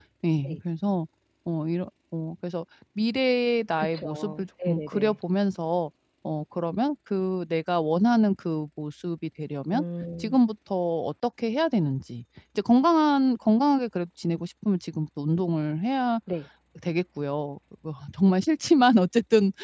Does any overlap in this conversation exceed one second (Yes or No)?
Yes